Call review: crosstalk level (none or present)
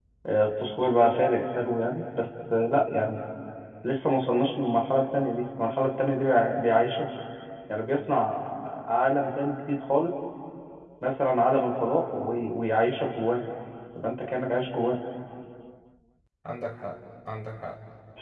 none